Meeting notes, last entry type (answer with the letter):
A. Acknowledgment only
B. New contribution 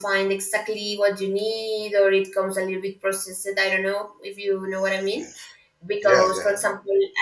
A